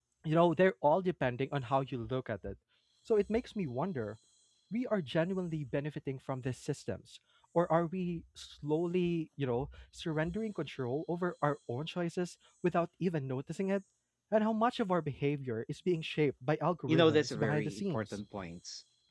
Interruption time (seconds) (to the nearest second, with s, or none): 17 s